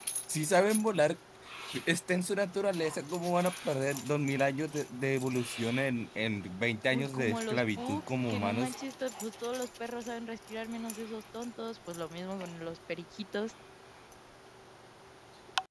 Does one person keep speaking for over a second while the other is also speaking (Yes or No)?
Yes